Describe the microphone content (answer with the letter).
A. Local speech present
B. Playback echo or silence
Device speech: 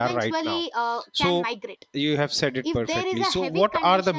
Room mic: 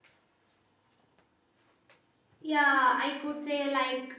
A